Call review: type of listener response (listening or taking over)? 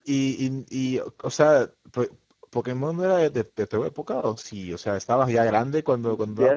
taking over